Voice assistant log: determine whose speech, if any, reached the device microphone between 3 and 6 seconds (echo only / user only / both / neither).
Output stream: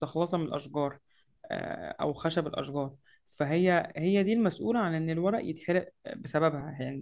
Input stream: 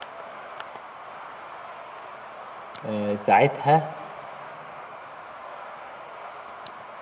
user only